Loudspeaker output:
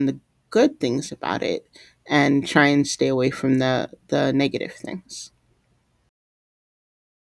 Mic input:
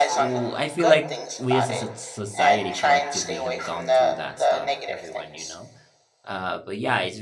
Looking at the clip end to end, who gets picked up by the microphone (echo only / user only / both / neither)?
both